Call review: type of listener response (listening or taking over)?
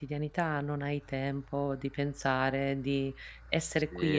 taking over